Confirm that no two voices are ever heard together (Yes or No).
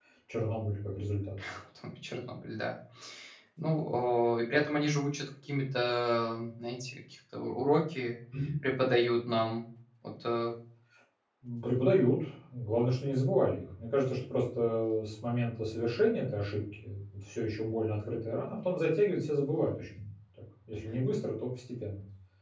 Yes